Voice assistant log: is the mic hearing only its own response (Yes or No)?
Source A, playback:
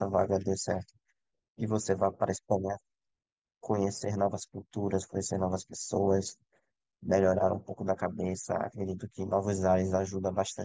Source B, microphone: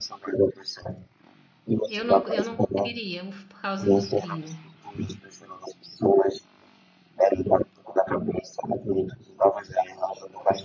No